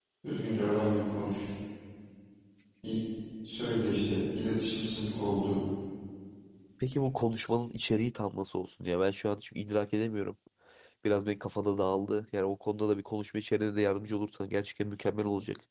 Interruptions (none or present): none